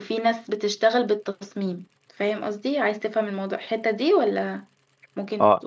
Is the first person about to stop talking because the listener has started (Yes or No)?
Yes